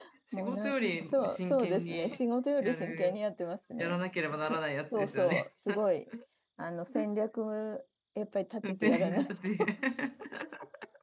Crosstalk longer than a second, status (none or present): present